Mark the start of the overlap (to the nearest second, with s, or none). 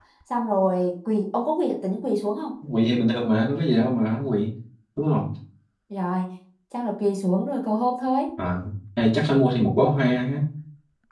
none